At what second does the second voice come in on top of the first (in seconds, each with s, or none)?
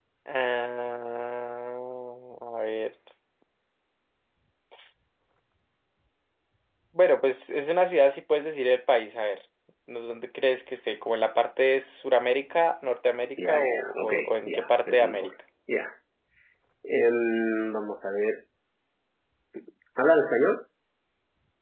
13.4 s